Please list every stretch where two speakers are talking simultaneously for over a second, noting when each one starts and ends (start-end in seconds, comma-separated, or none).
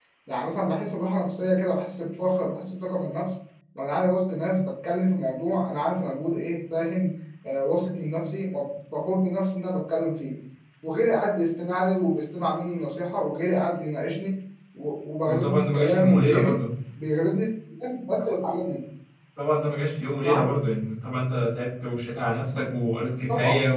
15.3-16.6